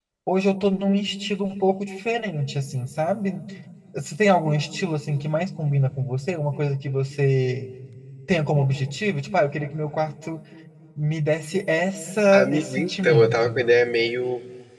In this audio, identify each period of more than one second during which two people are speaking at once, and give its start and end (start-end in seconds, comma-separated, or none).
12.3-13.6